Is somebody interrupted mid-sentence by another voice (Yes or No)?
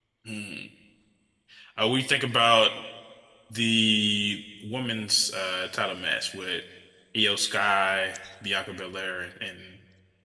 No